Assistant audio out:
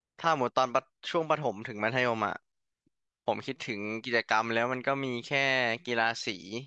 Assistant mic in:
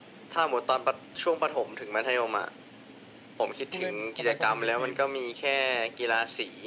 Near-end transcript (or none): ผู้เล่นคนใดคนหนึ่งในทีม